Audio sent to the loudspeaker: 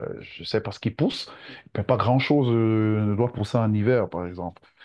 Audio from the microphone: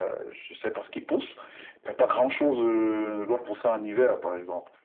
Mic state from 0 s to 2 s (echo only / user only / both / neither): echo only